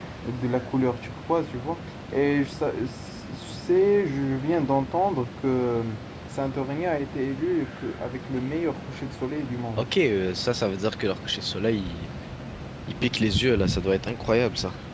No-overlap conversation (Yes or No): Yes